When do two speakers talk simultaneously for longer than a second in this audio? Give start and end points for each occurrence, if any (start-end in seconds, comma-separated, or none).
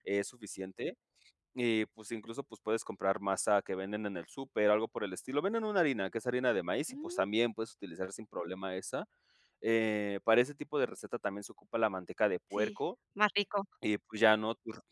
none